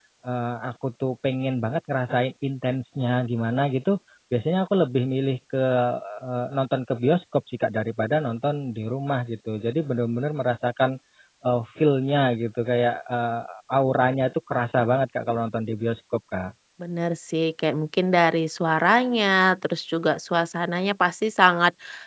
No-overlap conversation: Yes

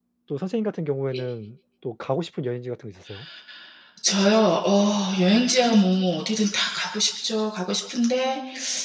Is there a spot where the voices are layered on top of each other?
No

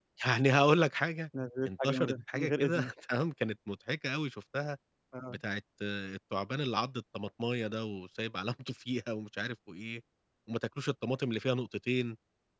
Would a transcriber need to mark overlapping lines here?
Yes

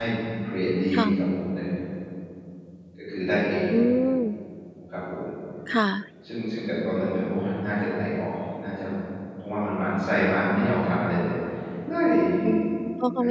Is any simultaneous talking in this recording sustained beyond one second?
No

